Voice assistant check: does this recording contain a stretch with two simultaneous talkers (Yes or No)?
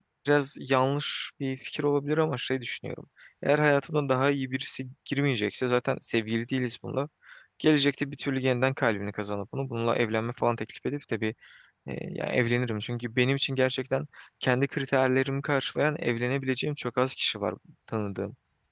No